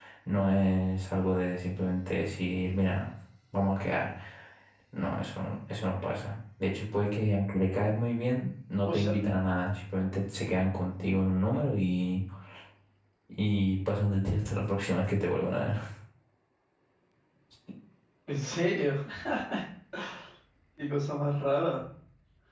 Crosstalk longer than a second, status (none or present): none